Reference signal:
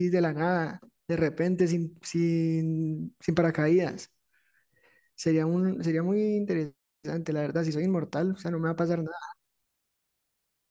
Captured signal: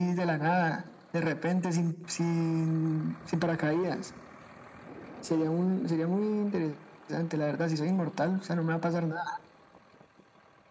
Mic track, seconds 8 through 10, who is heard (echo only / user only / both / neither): echo only